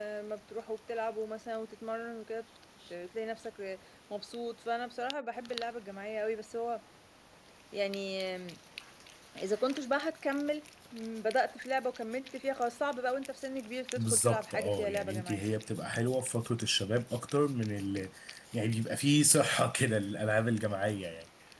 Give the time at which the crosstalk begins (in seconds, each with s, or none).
14.0 s